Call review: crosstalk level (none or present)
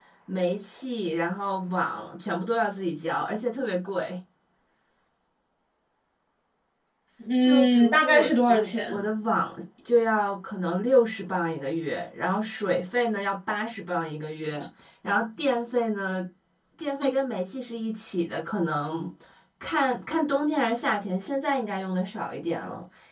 present